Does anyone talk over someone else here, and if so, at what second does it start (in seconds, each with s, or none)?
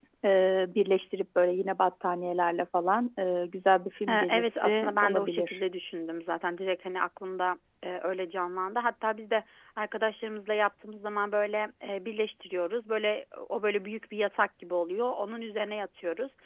4.1 s